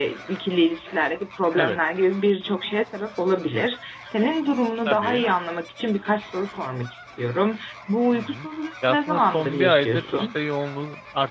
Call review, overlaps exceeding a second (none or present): present